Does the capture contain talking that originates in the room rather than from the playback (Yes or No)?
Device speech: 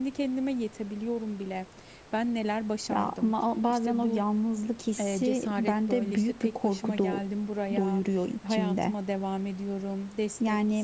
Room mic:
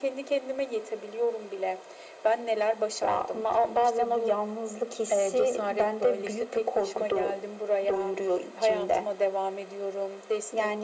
No